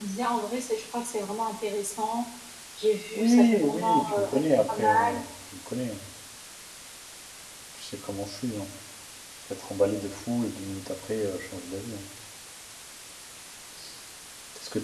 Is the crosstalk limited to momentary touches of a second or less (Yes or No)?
No